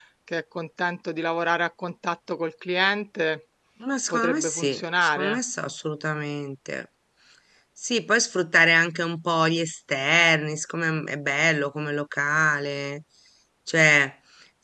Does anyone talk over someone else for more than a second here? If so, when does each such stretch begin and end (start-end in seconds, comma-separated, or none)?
4.1-5.4